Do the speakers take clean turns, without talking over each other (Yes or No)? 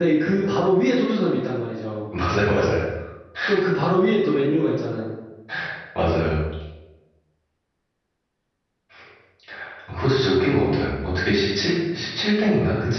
Yes